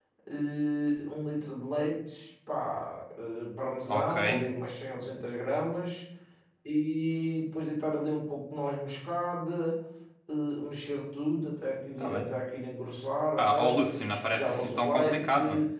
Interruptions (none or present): present